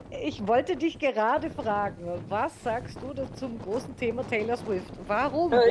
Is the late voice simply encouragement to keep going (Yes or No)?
No